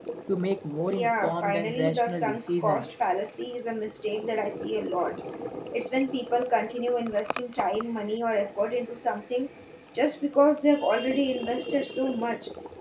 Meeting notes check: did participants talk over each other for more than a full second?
Yes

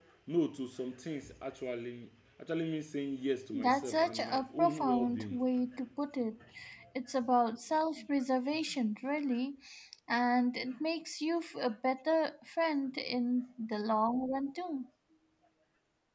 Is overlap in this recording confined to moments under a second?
No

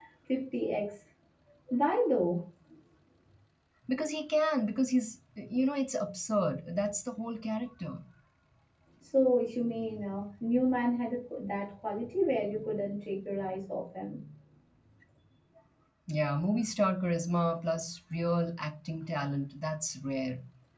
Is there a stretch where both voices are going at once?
No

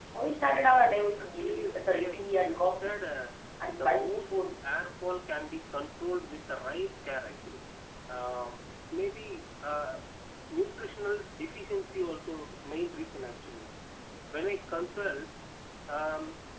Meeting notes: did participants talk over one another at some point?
Yes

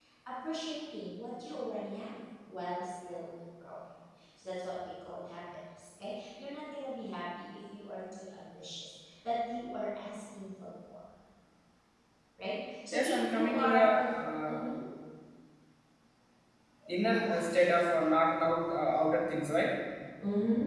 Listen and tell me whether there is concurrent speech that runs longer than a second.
Yes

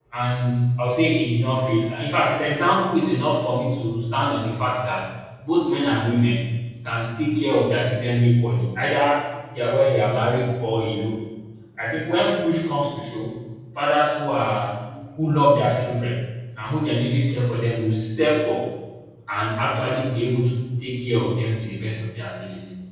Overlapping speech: No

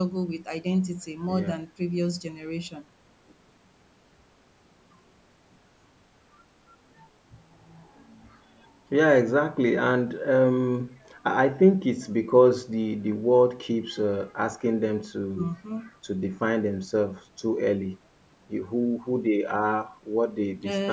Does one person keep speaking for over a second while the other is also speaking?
No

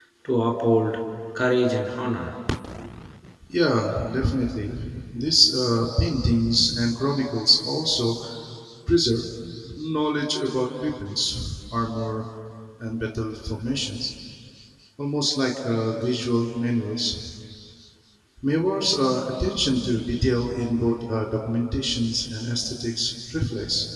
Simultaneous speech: No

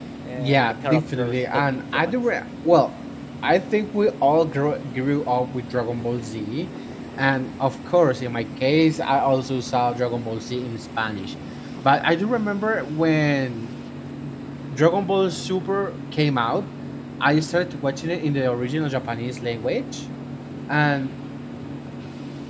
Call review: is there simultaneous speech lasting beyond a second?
Yes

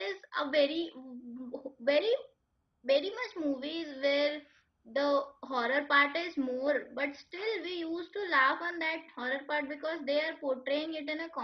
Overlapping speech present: No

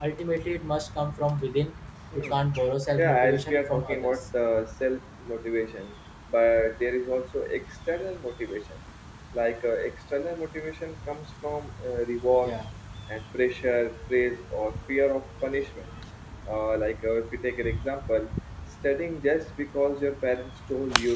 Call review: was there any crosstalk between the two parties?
Yes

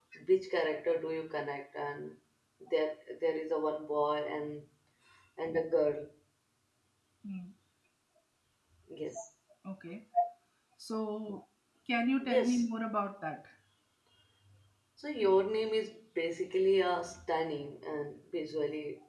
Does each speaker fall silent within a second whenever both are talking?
Yes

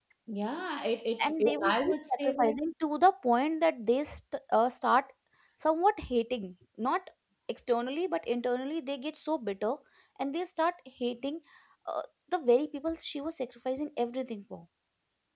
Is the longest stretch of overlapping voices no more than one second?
No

